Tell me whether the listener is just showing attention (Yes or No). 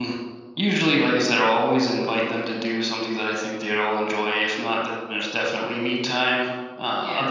Yes